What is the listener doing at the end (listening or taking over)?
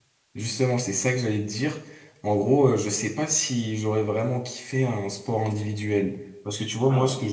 listening